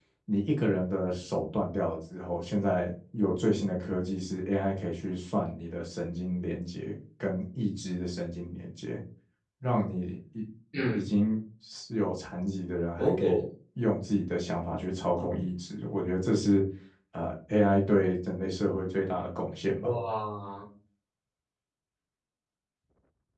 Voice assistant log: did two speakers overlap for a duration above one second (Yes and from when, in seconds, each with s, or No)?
No